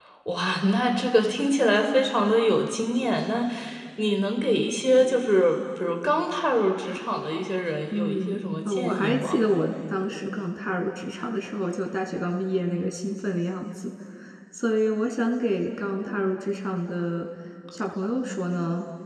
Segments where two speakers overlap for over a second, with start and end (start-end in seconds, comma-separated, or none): 7.9-9.4